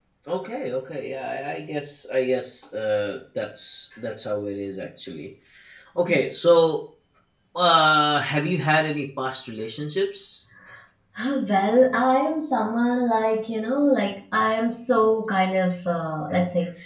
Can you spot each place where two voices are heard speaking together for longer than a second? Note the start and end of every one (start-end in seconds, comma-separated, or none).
none